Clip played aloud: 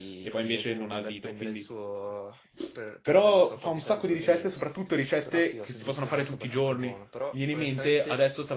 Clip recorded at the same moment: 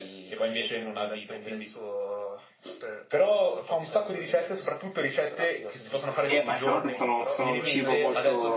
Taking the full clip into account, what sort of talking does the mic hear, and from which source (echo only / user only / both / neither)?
both